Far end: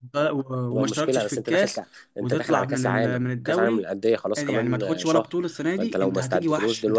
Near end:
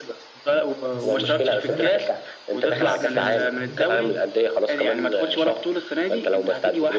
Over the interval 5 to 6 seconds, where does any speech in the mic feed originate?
echo only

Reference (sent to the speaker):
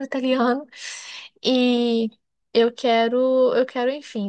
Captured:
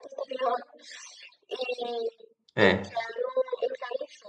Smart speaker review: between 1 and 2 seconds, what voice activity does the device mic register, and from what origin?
echo only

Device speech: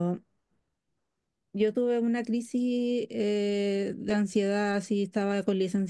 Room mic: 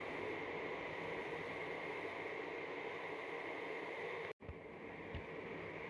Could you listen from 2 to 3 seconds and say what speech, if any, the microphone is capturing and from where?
neither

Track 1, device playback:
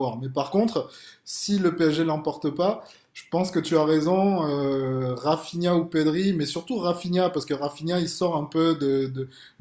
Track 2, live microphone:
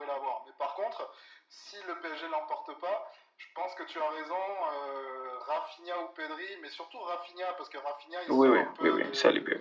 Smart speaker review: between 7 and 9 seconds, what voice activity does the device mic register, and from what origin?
both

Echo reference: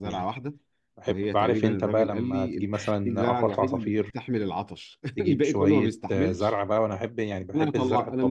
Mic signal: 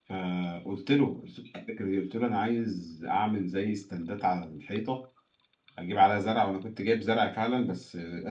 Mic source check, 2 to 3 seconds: user only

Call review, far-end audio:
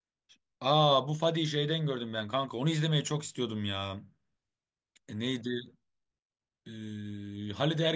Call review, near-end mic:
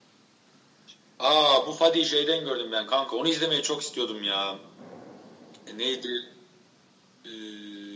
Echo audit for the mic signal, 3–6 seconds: echo only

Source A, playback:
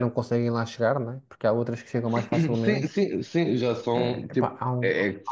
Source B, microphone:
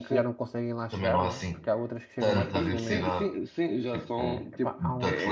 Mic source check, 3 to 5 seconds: both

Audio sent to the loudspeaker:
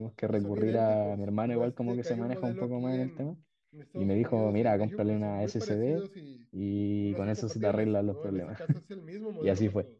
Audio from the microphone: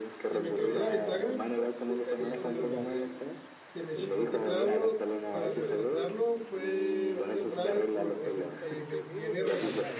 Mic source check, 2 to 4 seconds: both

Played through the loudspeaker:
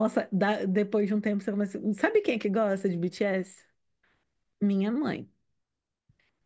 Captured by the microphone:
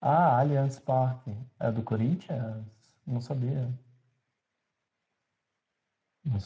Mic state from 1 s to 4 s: user only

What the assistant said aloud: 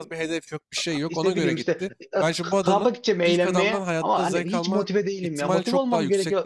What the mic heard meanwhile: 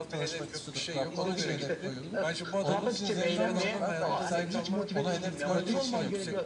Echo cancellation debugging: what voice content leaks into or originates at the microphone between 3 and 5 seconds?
both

